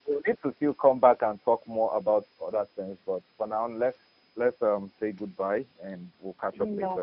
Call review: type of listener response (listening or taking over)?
taking over